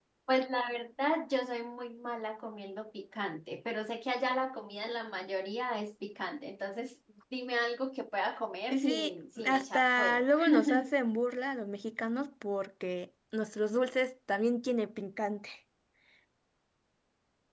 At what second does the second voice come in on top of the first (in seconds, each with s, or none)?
8.7 s